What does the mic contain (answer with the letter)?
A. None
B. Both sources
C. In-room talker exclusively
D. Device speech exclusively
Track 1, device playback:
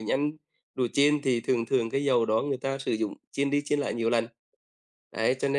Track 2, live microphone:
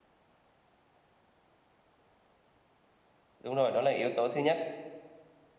C